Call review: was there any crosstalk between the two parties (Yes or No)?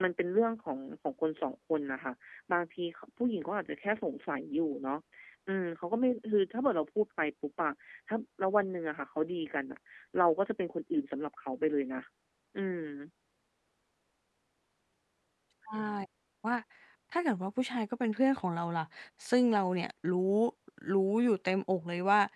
No